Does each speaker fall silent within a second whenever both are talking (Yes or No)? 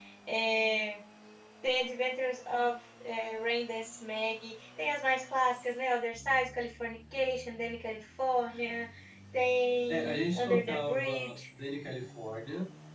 No